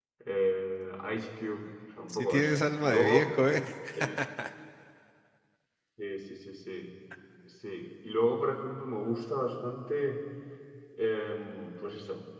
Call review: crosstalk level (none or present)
present